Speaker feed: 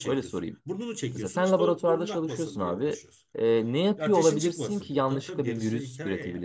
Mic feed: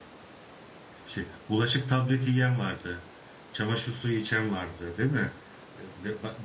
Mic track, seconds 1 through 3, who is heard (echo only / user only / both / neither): user only